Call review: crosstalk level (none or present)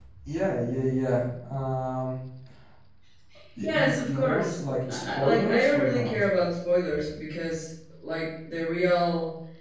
present